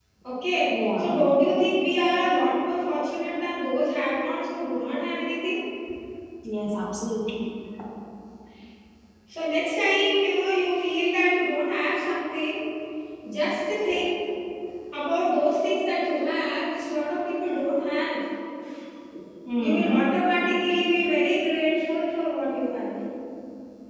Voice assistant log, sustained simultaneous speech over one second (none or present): none